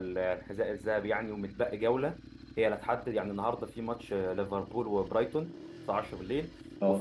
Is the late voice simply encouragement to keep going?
Yes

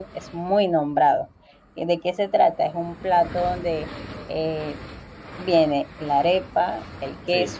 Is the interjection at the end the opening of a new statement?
No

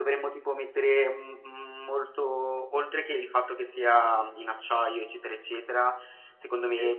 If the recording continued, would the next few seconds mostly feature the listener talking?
No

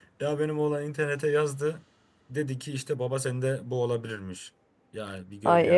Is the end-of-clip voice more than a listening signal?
Yes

